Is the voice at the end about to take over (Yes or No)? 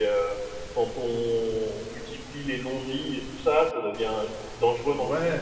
Yes